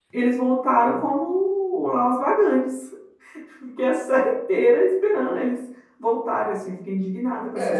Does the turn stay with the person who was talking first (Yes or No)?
No